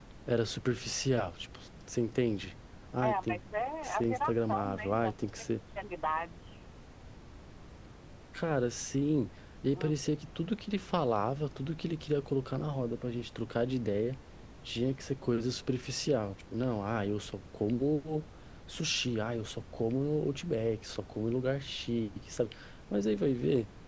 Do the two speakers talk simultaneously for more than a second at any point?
Yes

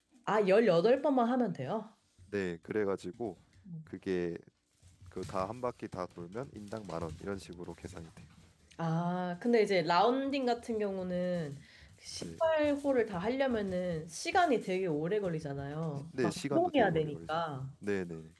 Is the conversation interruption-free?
No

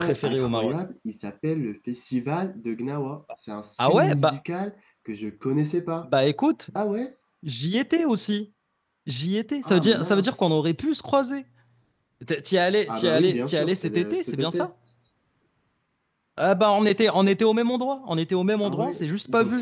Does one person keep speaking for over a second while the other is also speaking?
Yes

